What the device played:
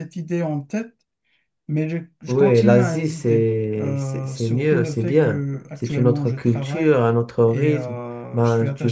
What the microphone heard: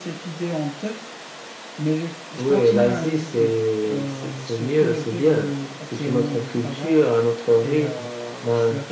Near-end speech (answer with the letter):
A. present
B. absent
B